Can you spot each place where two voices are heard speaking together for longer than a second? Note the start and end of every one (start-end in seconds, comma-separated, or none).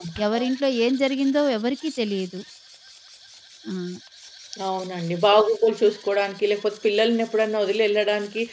none